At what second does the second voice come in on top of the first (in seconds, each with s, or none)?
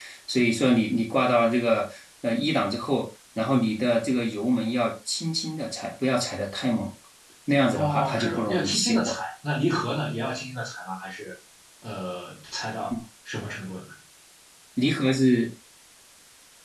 7.8 s